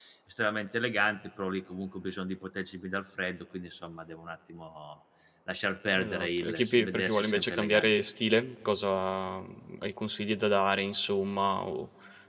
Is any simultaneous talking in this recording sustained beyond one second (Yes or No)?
Yes